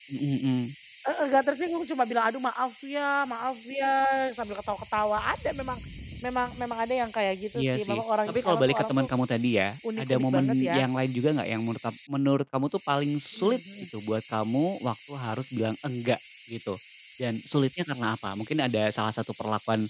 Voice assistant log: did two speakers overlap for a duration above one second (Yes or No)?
Yes